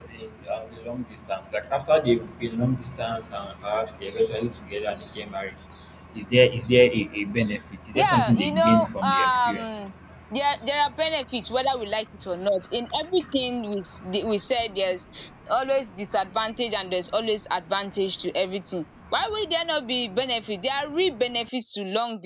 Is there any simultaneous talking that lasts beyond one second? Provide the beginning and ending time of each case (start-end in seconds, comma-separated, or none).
8.0-9.6